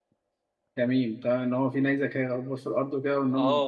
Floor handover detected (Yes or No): Yes